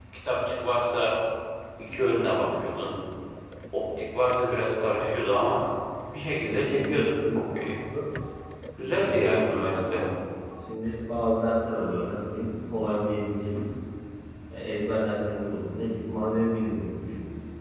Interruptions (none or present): present